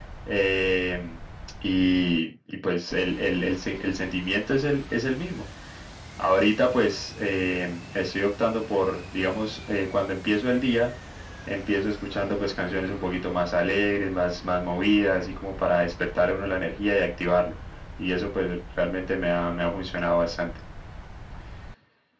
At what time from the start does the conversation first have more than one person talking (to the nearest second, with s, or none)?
none